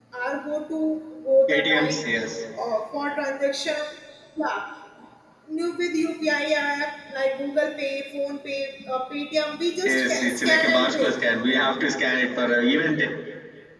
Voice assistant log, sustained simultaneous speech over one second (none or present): present